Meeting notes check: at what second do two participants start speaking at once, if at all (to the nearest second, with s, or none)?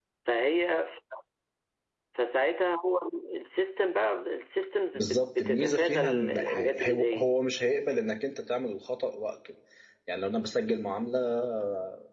5 s